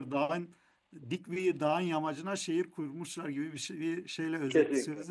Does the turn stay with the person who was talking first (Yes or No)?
No